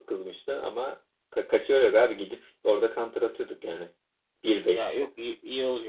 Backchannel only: No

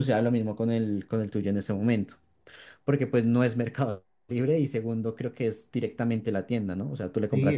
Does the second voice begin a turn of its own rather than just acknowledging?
Yes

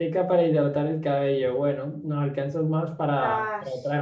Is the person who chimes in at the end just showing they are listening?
Yes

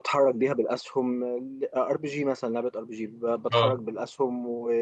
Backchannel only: Yes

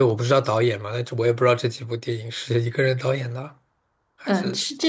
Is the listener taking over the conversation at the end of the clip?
Yes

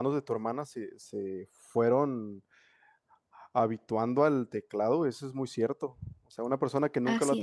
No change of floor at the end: Yes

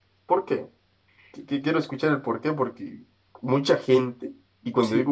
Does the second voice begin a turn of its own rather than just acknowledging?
No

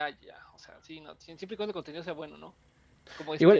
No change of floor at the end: No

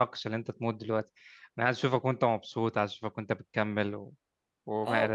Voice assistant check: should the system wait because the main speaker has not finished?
No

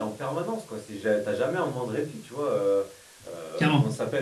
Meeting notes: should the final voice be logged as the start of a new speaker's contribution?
No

